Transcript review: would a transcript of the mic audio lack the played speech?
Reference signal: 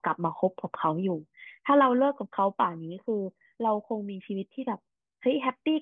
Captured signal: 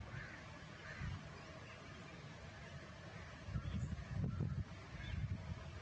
Yes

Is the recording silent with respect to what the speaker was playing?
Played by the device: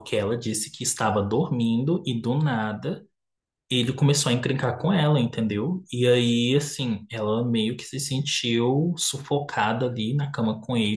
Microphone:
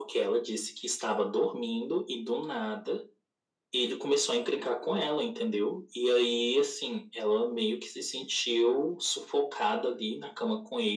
No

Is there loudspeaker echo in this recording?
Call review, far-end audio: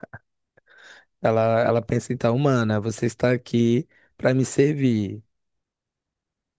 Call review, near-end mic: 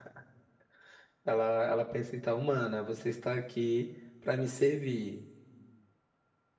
Yes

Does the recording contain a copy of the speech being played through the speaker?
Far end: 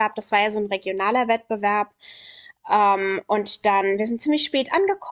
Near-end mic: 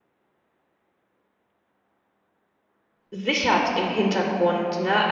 No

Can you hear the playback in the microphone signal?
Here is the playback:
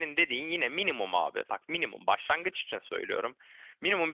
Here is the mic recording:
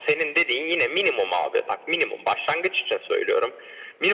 Yes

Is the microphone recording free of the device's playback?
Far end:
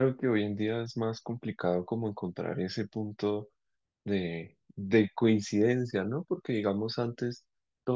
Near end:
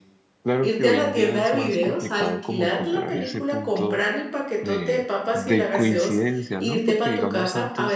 No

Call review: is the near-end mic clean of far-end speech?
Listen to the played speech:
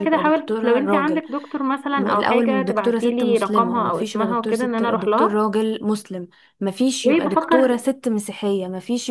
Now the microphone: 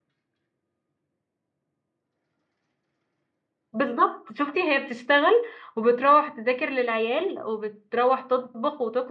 Yes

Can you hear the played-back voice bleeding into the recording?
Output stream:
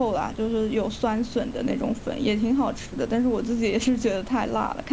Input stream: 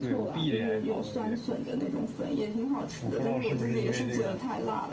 Yes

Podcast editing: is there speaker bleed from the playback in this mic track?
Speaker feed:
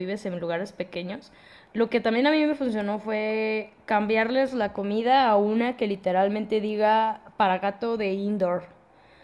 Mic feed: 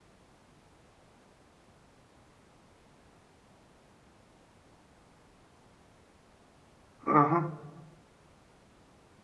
No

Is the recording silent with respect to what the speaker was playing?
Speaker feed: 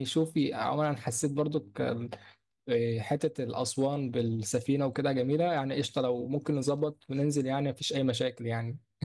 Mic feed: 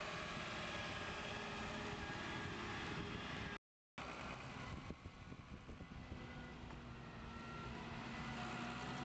Yes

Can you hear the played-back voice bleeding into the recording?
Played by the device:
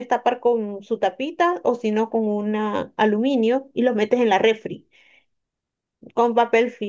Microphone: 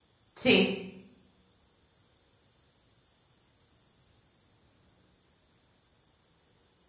No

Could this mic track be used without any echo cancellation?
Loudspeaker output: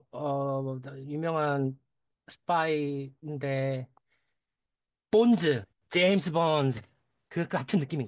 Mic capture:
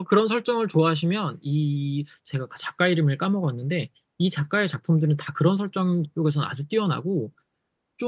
Yes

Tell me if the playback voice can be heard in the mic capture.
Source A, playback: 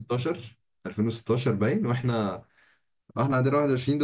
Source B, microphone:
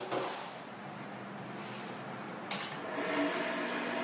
No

